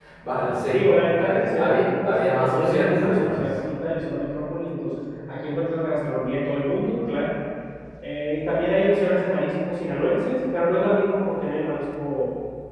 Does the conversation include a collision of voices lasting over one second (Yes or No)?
Yes